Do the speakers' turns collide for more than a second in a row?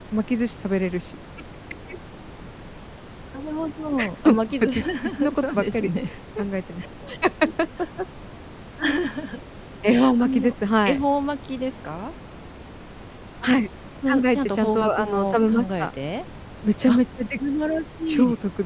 Yes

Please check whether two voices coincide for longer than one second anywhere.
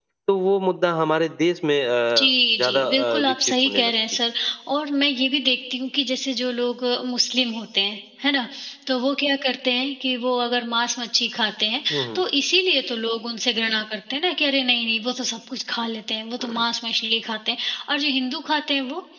Yes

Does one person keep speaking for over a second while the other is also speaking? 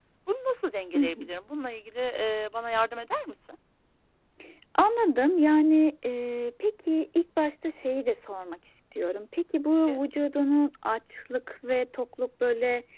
No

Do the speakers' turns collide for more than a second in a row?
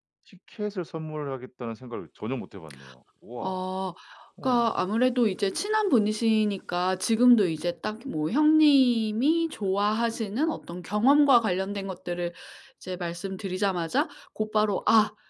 No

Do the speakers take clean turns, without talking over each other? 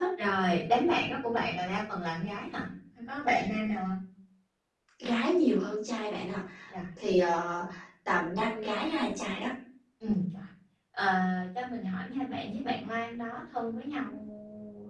Yes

